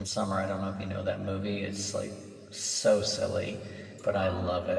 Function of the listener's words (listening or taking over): listening